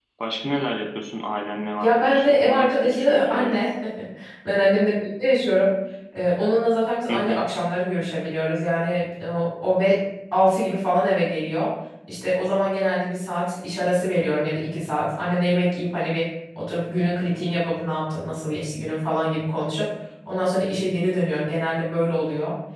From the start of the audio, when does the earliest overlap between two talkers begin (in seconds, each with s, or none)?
1.8 s